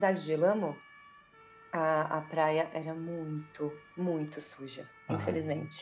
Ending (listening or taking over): taking over